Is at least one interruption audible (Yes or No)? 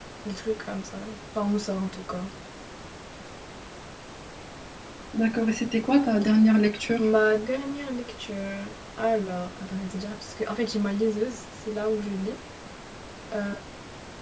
No